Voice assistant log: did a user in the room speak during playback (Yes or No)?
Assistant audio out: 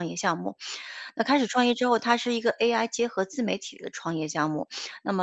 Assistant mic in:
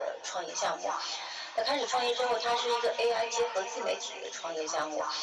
No